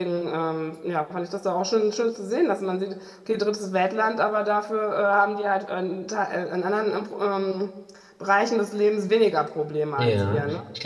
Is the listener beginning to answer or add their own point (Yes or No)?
Yes